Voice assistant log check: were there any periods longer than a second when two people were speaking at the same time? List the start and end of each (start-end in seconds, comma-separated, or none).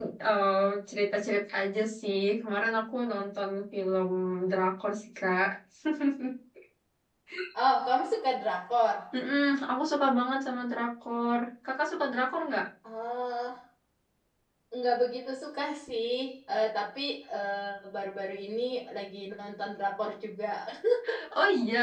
none